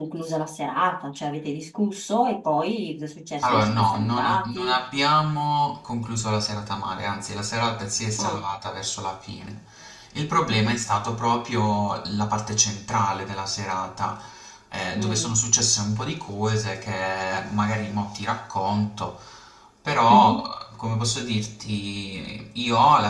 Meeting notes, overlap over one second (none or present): present